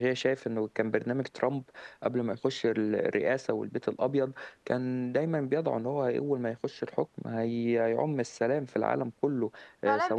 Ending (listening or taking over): taking over